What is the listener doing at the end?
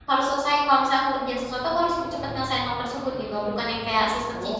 listening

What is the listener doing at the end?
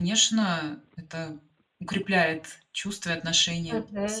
taking over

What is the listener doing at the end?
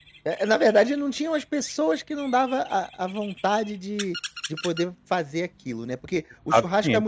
listening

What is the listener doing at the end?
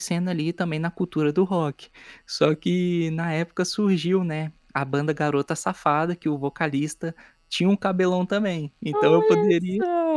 taking over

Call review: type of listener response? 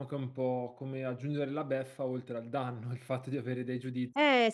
taking over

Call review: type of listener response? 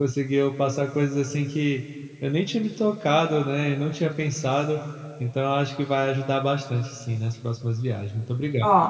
taking over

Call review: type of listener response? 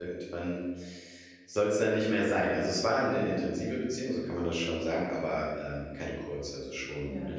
taking over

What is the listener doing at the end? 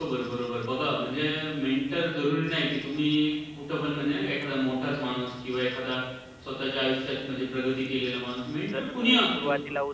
taking over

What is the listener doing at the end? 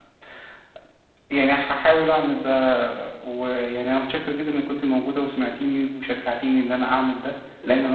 listening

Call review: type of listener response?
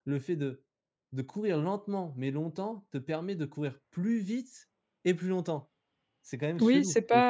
taking over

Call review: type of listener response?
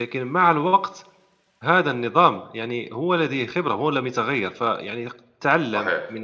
listening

